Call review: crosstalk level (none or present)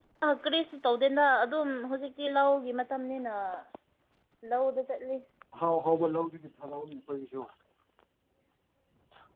none